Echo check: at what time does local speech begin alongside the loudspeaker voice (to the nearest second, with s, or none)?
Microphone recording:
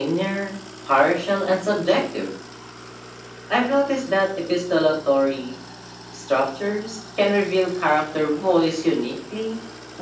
none